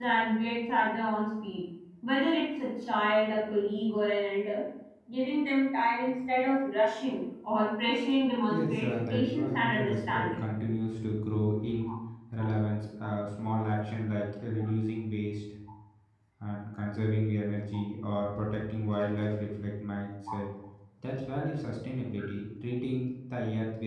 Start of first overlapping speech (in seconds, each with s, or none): 8.5 s